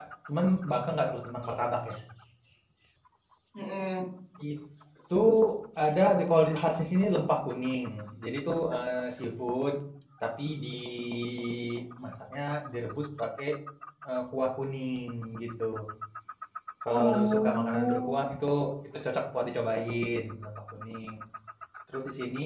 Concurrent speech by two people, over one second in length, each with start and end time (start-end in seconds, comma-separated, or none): 16.9-18.1